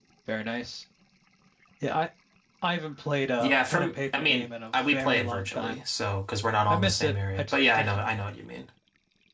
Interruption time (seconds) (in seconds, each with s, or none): 3.4 s